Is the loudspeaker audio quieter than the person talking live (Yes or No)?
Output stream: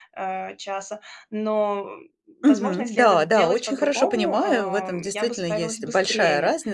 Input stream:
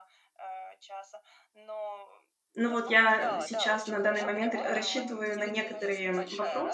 Yes